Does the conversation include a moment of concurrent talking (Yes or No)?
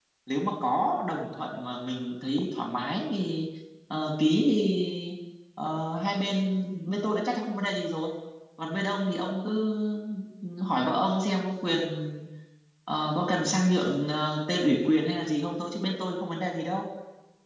No